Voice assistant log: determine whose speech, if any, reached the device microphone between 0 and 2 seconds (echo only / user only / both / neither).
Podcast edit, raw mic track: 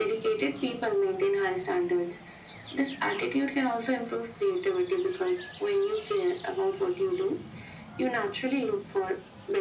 echo only